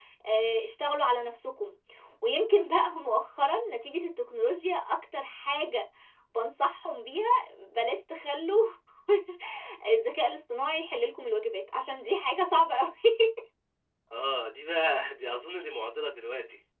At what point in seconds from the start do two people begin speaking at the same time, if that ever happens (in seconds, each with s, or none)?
none